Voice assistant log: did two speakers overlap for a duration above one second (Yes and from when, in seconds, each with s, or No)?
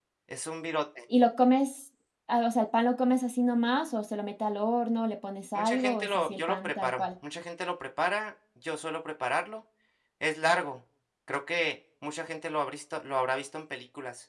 Yes, from 5.6 s